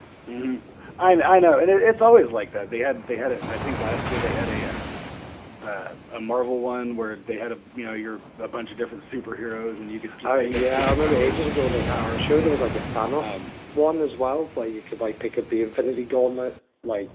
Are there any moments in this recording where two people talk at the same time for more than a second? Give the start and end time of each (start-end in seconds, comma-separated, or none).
10.2-12.5